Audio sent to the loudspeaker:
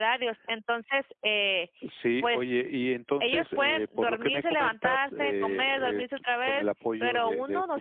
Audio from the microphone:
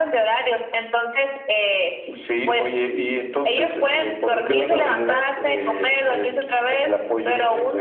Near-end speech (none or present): present